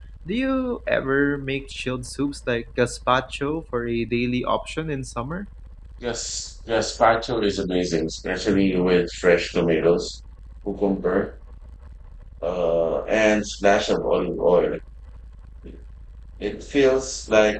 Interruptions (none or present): none